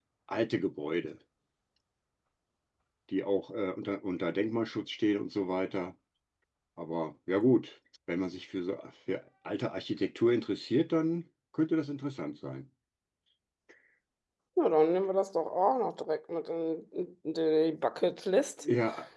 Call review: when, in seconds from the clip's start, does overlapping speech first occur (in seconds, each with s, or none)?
none